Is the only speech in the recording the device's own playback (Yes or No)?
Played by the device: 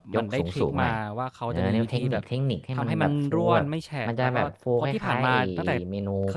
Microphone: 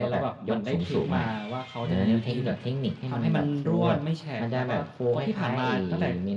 Yes